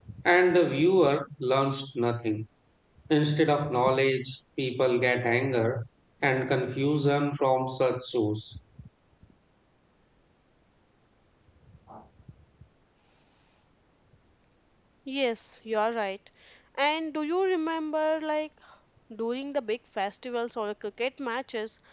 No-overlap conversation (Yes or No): Yes